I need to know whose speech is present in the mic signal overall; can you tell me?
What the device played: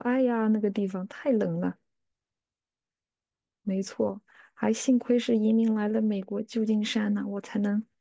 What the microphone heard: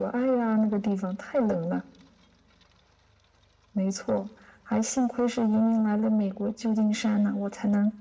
echo only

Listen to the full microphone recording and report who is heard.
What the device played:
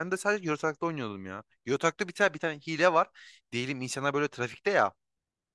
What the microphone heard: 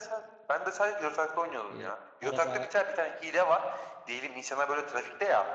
both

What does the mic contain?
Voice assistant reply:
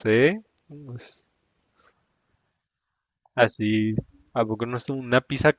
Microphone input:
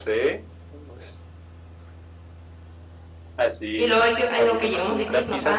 both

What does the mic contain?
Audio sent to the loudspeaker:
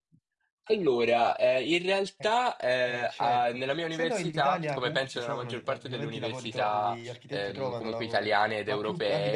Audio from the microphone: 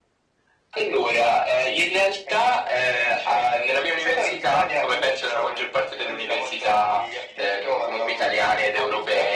echo only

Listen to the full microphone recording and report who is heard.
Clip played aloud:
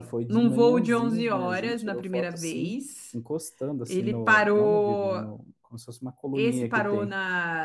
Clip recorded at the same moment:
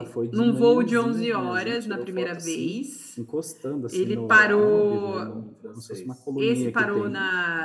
both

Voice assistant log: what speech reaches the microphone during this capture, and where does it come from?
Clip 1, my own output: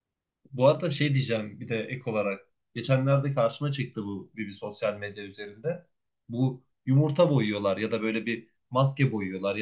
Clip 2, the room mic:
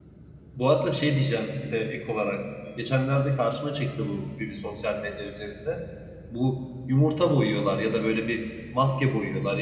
echo only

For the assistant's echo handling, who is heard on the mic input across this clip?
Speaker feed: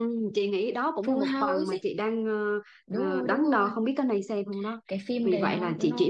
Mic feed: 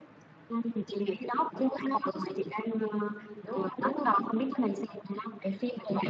echo only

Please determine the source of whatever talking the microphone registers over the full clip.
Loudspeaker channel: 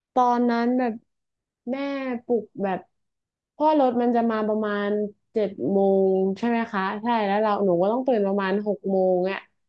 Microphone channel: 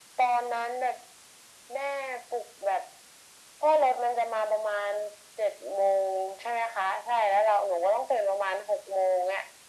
echo only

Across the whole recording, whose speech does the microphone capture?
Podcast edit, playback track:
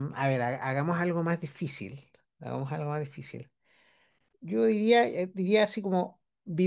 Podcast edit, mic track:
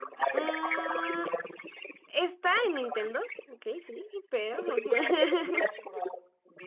both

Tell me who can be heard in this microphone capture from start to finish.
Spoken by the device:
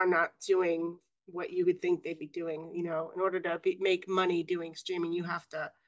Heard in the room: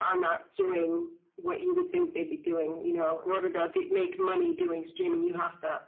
echo only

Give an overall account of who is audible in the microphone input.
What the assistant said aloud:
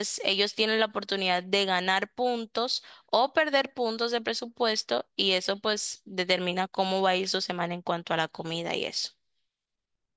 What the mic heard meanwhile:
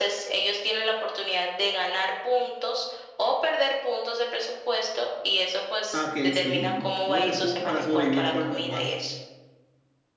both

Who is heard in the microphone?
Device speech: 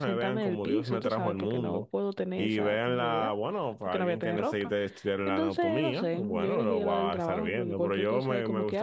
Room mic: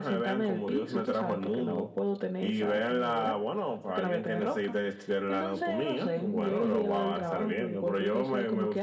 echo only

